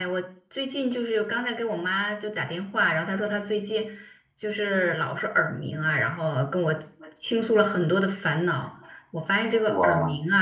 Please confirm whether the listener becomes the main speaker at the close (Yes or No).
No